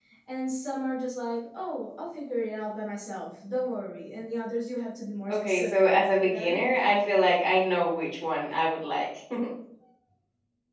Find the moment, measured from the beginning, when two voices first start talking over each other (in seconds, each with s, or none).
5.3 s